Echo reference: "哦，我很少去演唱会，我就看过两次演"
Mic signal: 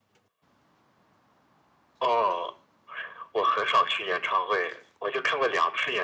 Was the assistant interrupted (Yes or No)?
No